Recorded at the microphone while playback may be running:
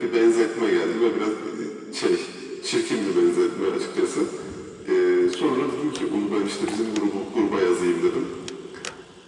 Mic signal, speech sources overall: echo only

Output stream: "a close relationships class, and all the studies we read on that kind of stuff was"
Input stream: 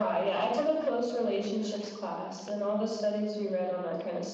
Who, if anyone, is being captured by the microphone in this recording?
echo only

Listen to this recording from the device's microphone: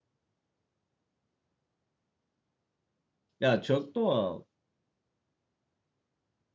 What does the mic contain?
user only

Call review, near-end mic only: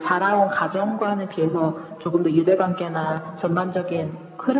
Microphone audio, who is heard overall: echo only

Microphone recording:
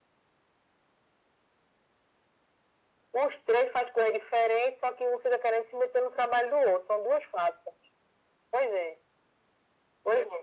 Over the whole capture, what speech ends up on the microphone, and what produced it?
echo only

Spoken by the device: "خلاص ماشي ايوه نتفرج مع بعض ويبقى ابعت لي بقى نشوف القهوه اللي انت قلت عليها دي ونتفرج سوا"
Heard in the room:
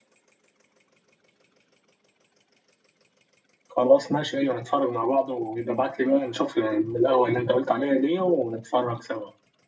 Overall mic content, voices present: echo only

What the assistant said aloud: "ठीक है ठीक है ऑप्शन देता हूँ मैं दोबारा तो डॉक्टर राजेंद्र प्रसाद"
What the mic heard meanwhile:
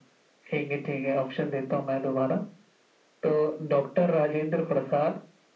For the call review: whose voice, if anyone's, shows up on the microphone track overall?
echo only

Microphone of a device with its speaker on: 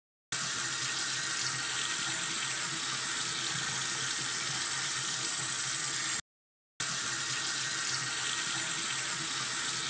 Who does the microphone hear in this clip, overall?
neither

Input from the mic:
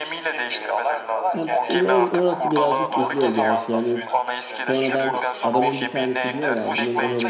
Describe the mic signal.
both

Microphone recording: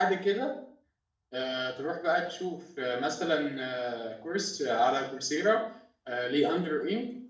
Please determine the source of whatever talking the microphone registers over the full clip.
user only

